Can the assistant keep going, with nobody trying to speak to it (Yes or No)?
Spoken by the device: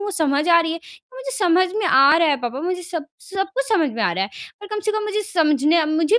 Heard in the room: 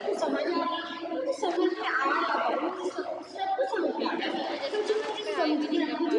No